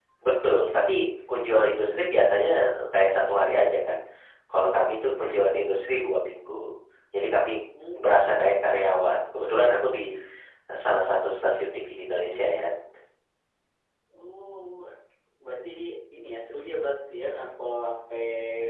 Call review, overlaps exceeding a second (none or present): none